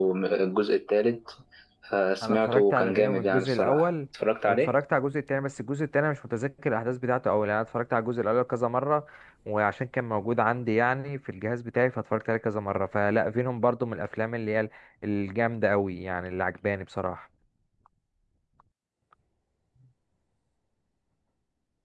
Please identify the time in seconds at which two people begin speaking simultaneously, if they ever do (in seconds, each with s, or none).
2.2 s